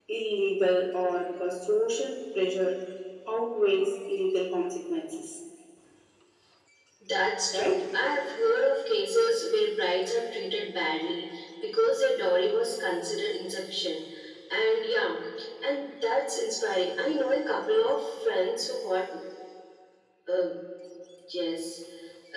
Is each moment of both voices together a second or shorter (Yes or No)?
Yes